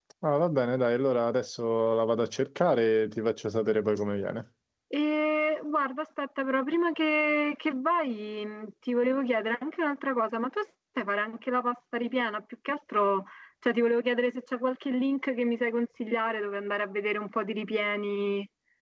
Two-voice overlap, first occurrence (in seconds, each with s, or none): none